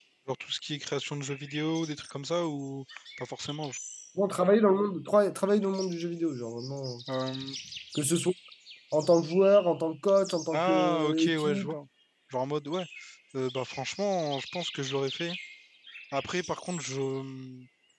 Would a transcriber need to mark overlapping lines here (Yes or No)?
Yes